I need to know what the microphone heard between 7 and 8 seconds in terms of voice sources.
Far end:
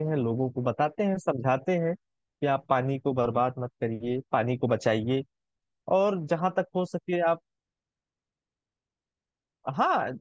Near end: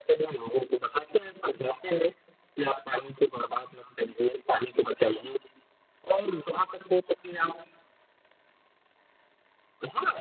echo only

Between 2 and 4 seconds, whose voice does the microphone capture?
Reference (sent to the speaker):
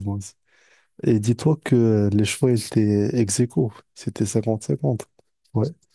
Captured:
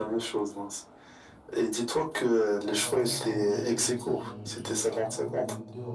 both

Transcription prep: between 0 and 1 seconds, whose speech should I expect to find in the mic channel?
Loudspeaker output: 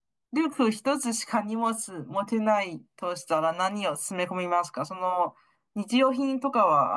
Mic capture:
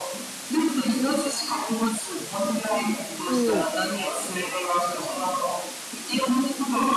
echo only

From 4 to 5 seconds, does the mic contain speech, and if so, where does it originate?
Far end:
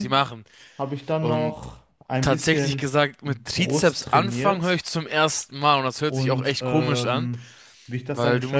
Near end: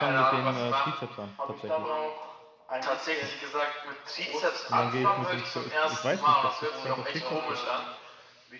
both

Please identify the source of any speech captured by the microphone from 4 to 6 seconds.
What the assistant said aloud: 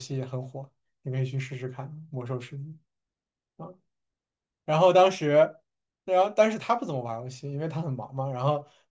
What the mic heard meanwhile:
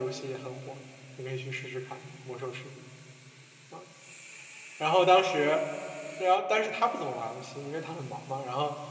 echo only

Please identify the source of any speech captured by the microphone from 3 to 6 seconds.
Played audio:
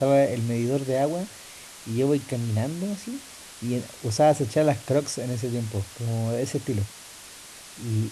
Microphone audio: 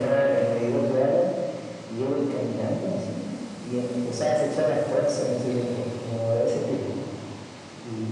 echo only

